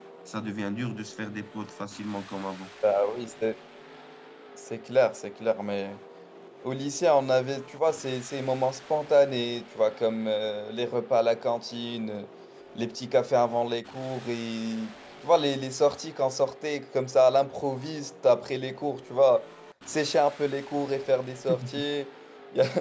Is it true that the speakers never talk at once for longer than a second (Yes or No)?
Yes